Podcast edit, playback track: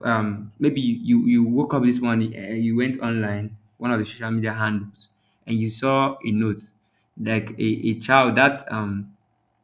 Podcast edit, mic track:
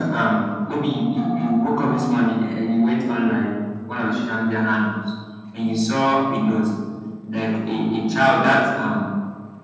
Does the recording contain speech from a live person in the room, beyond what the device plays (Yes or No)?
No